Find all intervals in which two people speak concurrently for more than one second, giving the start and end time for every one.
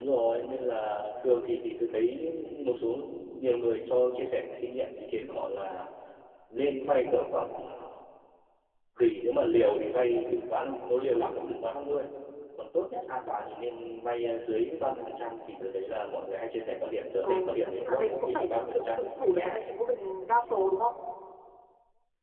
17.2-19.6

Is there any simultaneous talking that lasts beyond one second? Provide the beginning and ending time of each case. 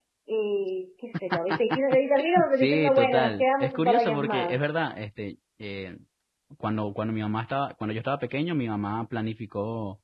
2.5-4.6

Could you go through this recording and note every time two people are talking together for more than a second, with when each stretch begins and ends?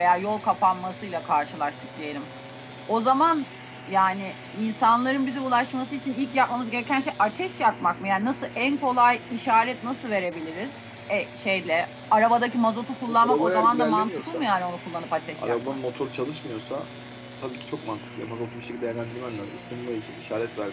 13.3-14.5

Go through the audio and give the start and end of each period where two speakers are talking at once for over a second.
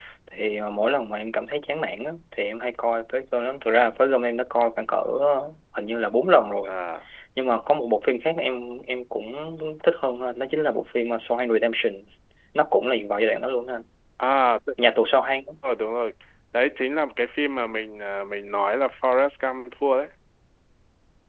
none

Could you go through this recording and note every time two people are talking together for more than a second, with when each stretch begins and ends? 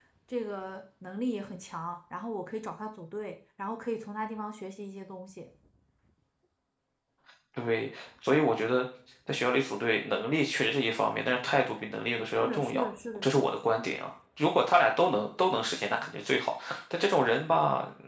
none

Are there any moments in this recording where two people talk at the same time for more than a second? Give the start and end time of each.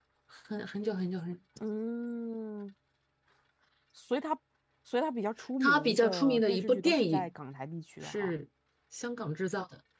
5.6-7.3

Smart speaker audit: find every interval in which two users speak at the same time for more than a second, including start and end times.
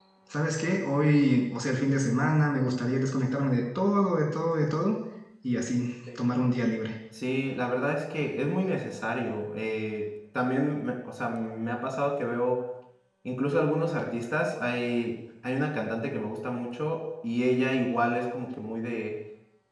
none

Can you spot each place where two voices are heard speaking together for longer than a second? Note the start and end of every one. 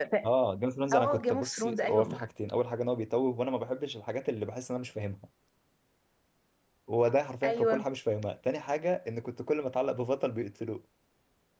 0.9-2.2

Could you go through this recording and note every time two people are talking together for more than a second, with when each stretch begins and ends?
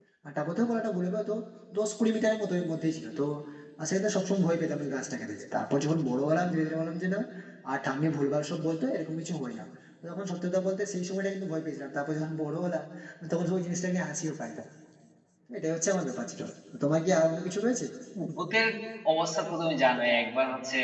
none

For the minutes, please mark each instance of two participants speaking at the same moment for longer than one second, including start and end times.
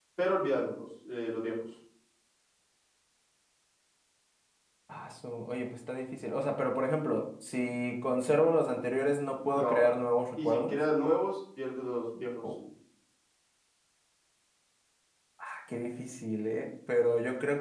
none

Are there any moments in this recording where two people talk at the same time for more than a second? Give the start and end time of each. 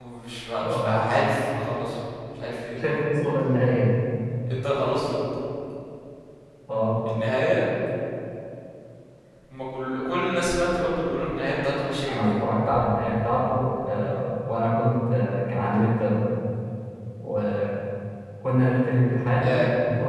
none

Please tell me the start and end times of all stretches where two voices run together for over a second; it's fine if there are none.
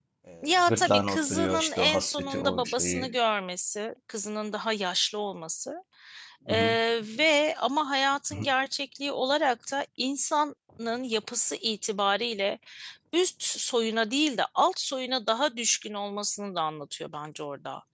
0.7-3.1

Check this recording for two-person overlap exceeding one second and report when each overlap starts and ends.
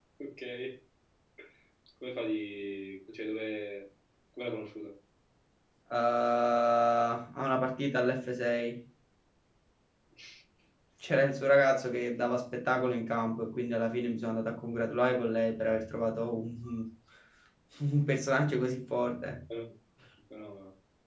none

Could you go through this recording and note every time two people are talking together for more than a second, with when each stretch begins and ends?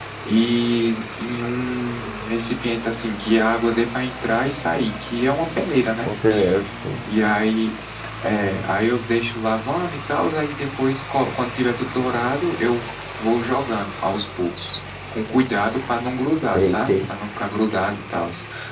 none

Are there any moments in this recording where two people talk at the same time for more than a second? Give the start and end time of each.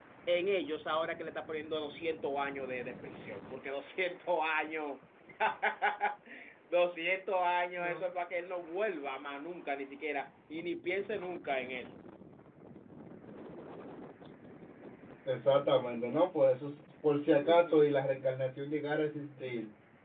none

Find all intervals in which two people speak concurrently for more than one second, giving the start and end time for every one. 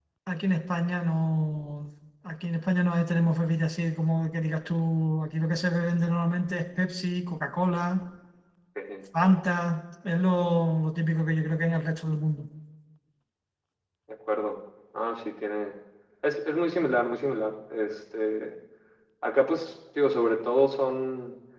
none

